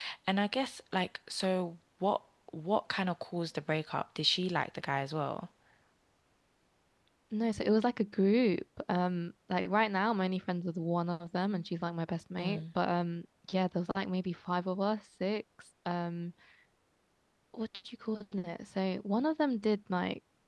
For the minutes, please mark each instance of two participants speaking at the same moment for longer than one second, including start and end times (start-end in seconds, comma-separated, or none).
none